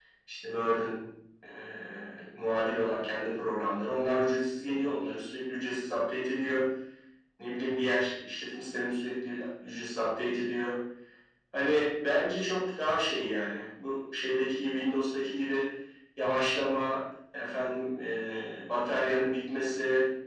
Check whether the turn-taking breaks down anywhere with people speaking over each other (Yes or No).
No